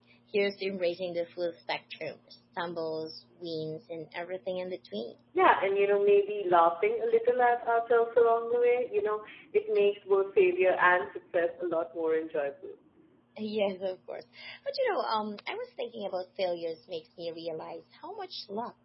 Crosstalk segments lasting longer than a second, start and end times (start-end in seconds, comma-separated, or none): none